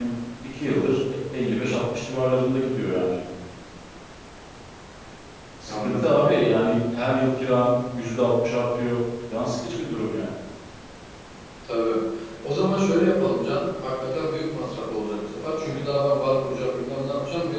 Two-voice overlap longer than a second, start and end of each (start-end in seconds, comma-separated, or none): none